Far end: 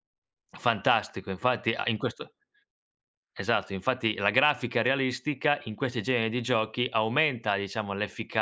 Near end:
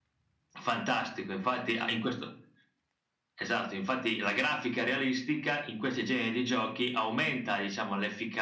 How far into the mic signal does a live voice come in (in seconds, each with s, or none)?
none